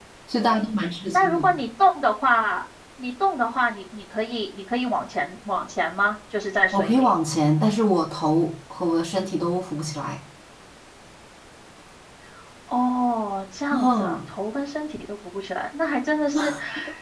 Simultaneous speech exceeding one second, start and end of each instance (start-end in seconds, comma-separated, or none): none